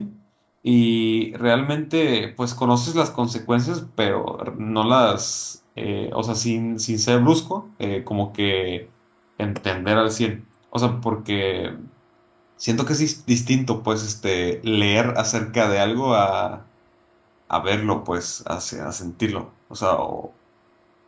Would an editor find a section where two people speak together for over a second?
No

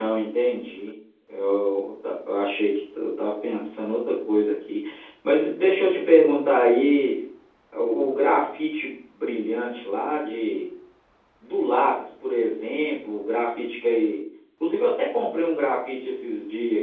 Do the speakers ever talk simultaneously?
No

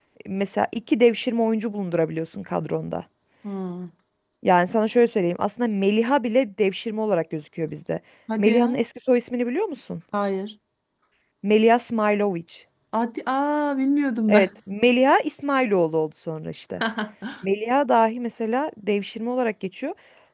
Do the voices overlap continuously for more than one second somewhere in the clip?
No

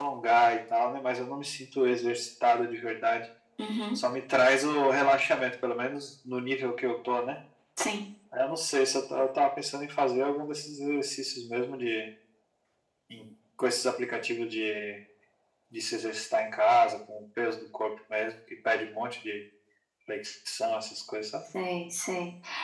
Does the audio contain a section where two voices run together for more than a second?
No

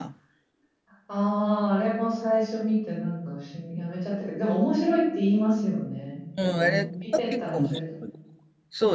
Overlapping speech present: Yes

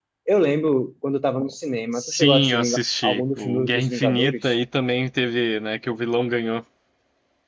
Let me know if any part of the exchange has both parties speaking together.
Yes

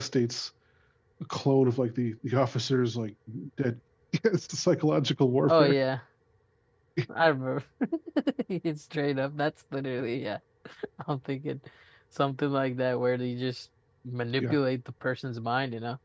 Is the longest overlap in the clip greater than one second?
No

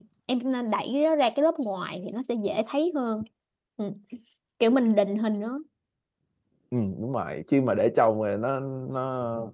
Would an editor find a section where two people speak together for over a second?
No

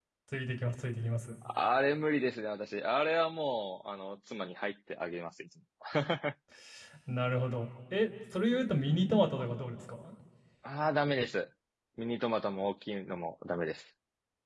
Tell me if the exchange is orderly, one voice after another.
Yes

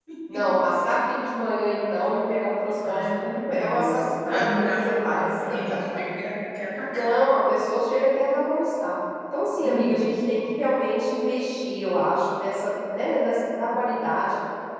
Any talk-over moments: Yes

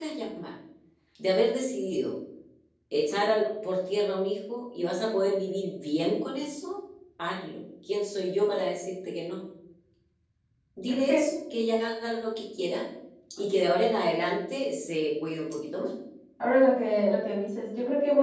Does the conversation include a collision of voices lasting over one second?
No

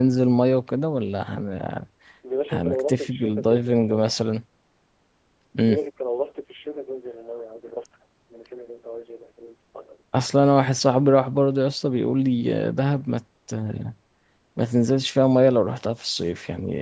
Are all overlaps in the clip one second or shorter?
No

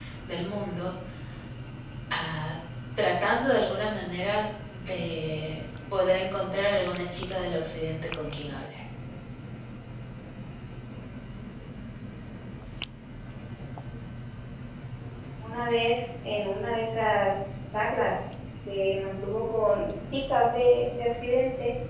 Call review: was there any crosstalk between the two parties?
No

